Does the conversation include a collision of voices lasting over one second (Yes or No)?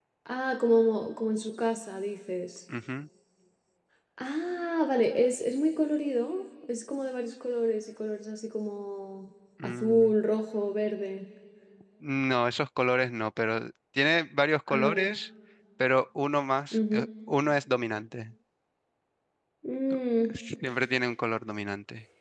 No